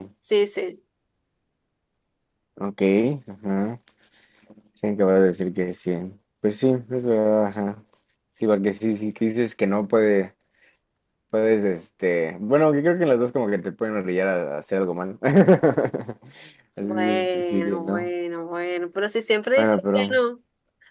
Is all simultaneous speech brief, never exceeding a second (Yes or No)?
No